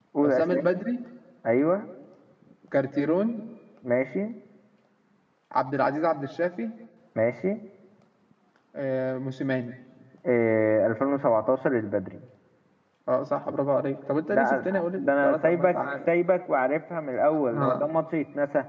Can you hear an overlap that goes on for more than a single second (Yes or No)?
Yes